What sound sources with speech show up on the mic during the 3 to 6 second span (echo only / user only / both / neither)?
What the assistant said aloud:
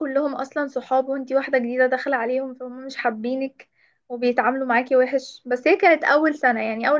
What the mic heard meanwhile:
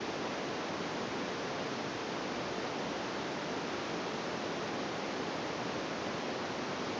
neither